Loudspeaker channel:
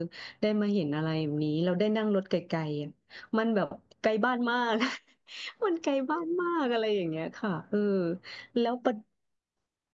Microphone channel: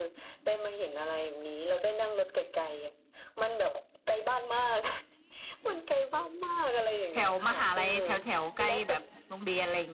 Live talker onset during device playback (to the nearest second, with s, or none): 7 s